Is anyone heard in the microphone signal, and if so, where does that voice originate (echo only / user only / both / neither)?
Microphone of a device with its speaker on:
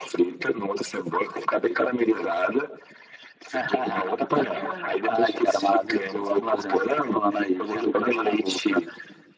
echo only